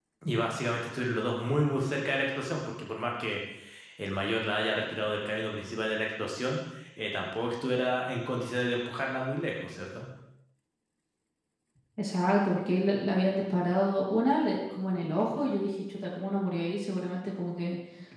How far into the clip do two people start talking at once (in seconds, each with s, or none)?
none